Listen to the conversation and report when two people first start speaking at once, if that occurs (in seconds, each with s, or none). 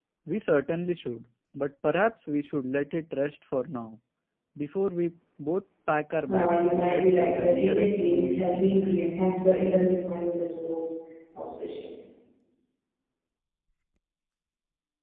6.3 s